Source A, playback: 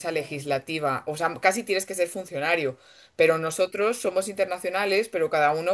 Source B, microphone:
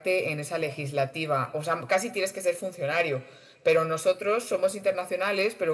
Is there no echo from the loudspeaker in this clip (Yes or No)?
No